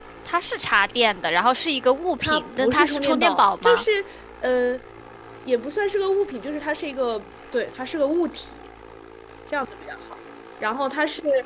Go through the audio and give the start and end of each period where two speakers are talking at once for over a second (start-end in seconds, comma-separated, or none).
2.2-3.8